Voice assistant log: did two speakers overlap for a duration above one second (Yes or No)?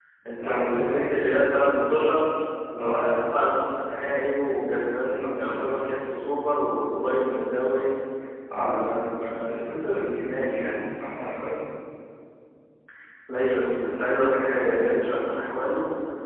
Yes